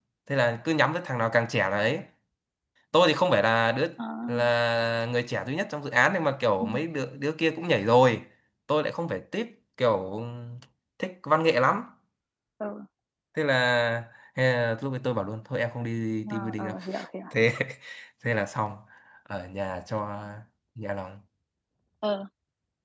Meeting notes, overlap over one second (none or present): none